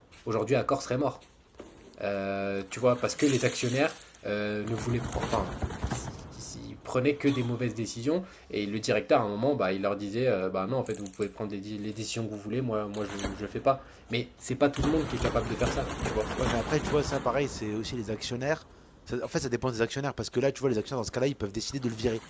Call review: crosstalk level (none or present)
none